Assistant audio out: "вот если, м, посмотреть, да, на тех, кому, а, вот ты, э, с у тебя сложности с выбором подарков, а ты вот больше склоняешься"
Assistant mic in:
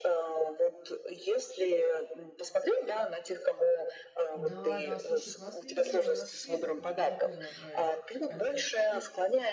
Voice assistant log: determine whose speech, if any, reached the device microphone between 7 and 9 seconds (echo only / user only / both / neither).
both